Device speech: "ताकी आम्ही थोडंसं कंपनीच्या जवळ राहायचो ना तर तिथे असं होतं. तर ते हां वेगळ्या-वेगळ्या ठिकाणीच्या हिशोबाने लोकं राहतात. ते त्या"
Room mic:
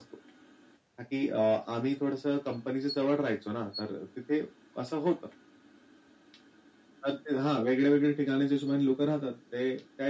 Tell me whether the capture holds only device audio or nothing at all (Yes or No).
Yes